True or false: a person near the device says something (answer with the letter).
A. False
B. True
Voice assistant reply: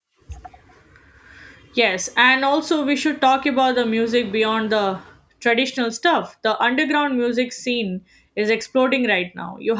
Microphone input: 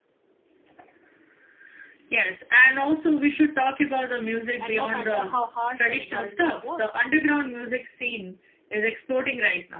B